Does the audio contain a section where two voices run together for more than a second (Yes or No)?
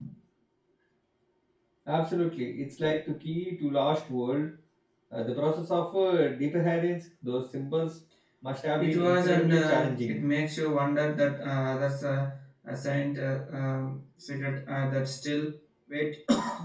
Yes